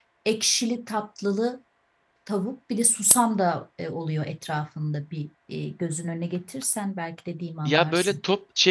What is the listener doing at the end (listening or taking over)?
taking over